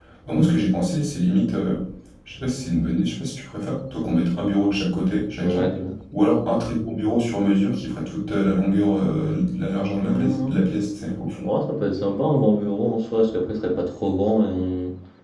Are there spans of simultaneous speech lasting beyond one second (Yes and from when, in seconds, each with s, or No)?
No